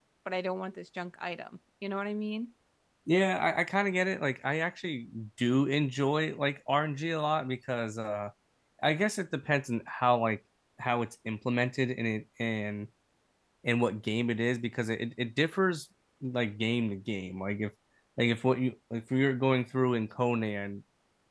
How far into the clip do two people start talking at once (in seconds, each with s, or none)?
none